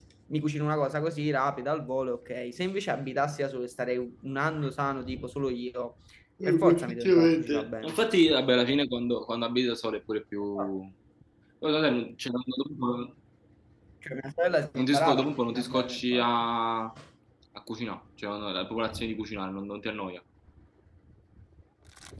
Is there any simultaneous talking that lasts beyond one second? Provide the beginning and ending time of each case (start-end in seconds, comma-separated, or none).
6.4-8.0, 14.8-16.3